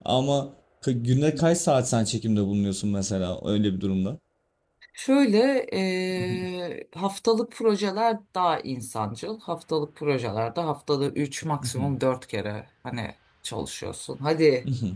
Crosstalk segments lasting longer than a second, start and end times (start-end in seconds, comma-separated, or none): none